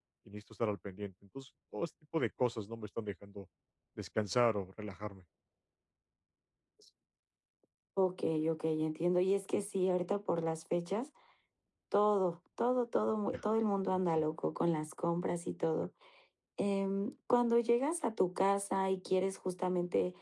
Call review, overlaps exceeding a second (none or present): none